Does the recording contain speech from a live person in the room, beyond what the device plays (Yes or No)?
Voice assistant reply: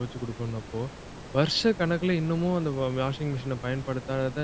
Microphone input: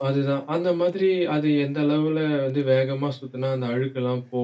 Yes